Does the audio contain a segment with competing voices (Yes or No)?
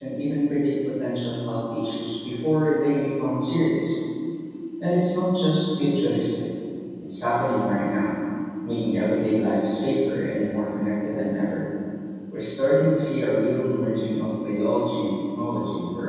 No